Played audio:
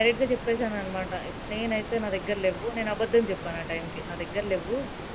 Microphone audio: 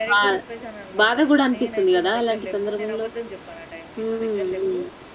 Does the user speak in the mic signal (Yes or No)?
Yes